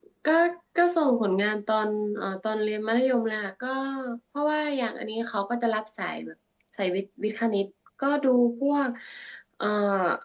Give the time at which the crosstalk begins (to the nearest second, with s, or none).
none